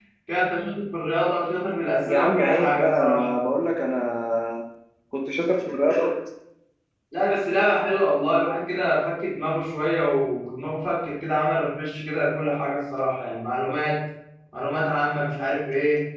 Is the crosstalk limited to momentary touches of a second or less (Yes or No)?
No